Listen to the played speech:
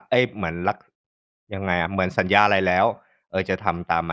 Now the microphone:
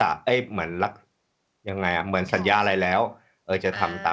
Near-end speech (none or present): present